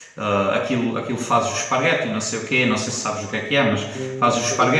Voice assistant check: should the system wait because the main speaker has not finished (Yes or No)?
Yes